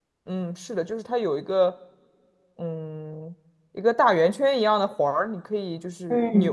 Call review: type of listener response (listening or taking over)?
taking over